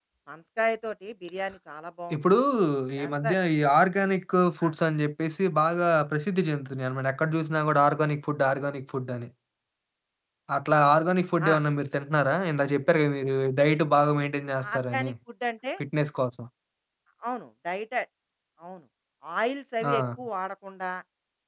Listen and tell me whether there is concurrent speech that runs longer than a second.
No

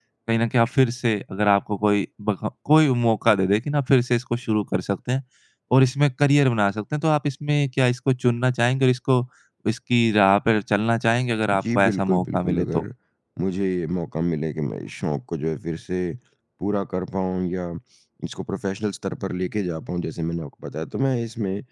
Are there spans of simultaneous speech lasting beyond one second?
Yes, from 11.5 s

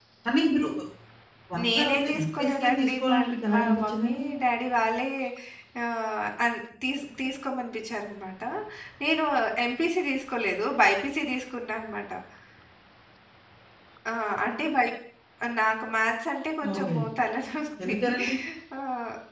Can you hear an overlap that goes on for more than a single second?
Yes, from 1.7 s

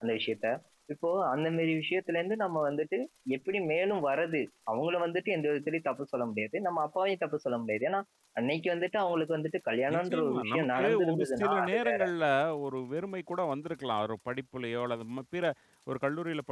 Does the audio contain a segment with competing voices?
Yes, from 9.9 s

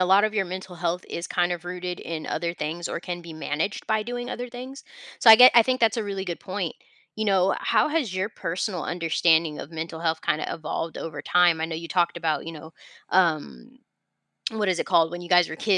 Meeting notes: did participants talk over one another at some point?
No

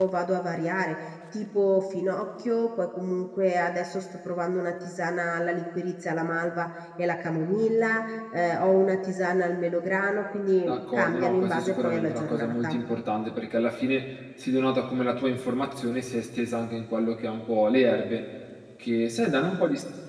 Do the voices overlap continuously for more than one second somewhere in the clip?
Yes, from 10.7 s

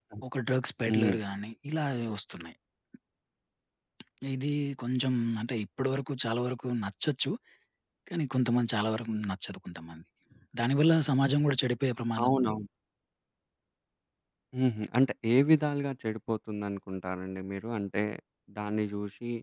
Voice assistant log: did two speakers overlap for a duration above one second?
No

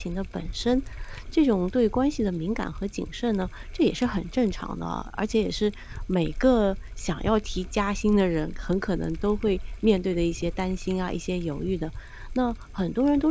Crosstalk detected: No

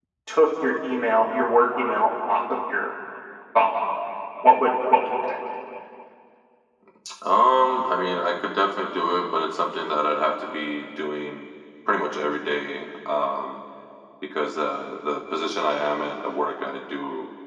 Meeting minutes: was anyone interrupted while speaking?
No

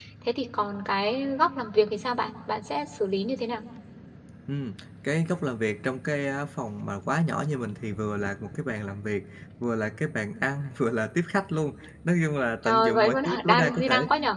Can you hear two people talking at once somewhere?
Yes, from 12.6 s

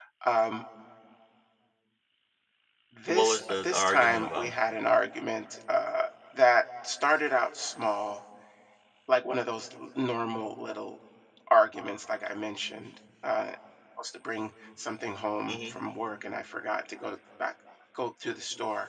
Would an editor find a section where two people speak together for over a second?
Yes, from 3.1 s

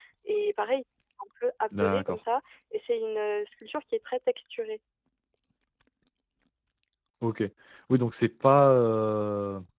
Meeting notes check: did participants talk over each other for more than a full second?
No

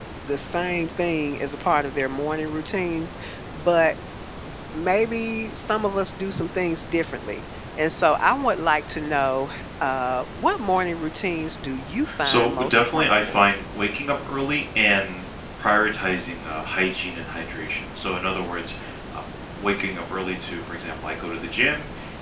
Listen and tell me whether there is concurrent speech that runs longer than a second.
Yes, from 12.0 s

